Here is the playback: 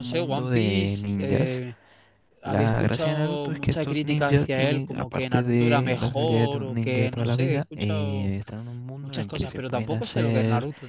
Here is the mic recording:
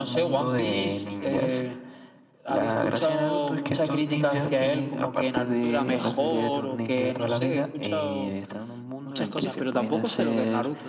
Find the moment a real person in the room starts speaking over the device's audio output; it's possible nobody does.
none

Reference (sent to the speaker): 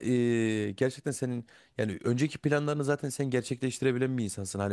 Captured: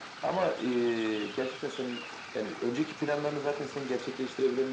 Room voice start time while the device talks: none

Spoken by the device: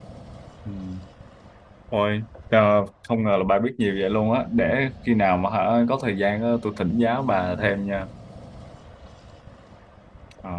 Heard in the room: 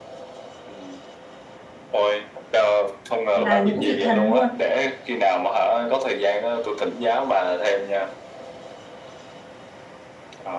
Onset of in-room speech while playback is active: 3.3 s

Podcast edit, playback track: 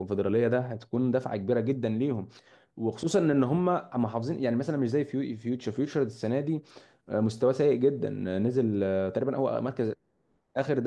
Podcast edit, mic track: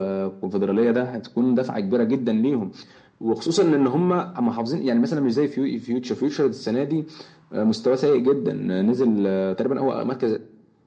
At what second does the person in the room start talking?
none

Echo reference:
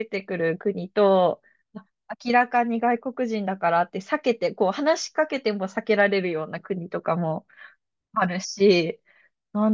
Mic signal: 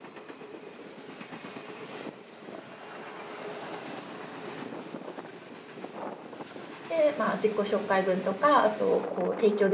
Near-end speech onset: 6.9 s

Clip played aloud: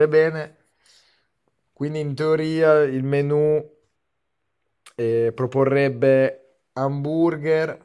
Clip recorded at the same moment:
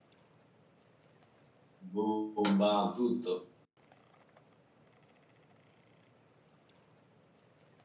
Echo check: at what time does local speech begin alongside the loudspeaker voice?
1.8 s

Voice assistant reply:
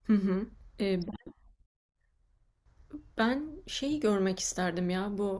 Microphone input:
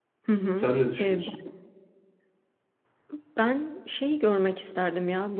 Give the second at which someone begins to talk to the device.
0.5 s

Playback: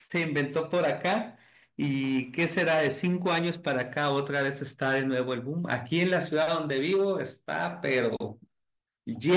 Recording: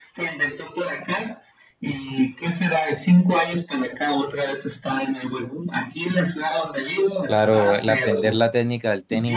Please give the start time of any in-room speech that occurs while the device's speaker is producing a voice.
7.3 s

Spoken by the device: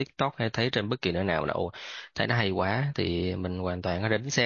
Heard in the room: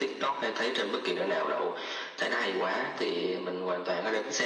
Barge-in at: none

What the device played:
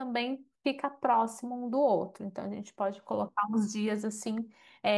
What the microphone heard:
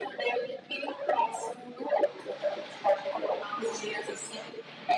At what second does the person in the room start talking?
none

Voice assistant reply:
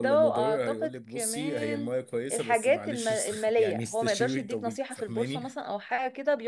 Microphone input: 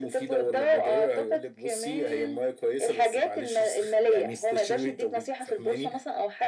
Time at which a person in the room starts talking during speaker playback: none

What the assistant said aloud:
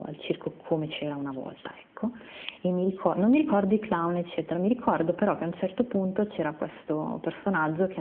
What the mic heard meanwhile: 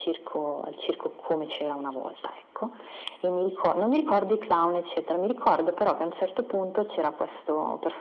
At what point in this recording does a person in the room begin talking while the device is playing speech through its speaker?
none

